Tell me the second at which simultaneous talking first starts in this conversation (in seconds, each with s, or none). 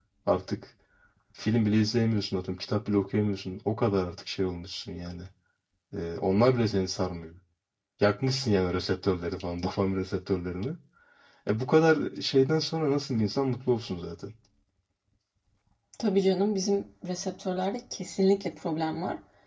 none